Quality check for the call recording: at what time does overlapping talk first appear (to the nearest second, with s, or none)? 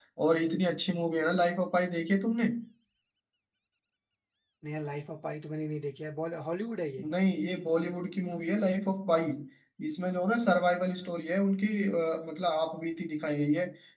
none